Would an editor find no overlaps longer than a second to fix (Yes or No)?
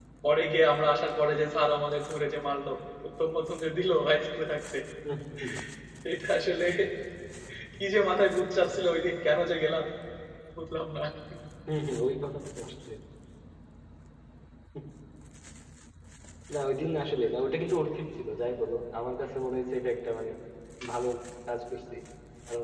Yes